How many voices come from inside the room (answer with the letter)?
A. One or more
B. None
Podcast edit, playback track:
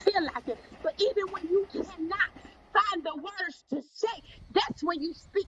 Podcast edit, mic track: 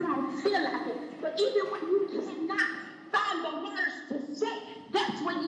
B